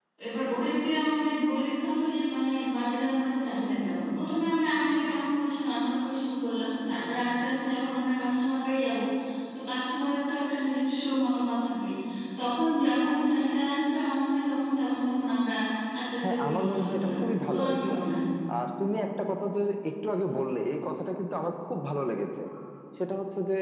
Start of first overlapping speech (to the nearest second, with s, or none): 16 s